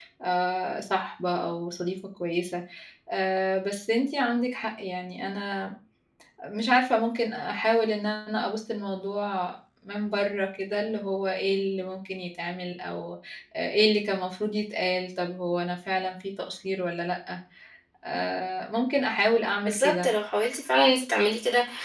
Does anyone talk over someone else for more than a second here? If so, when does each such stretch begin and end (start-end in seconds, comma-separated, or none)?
none